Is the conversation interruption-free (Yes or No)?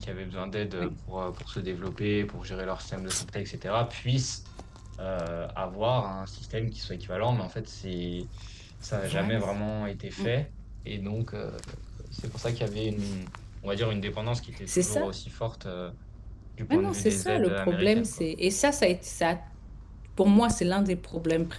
No